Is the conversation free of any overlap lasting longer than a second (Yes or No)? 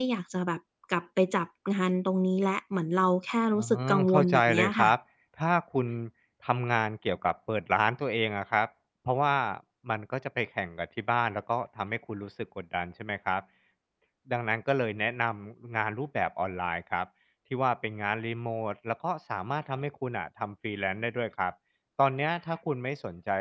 No